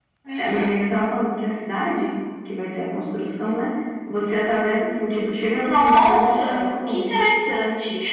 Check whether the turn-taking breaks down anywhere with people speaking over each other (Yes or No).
Yes